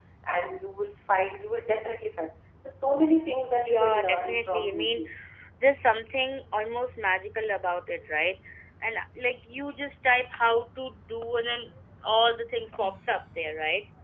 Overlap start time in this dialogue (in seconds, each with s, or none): 3.5 s